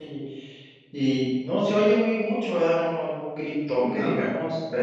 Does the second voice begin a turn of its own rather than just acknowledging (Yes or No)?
No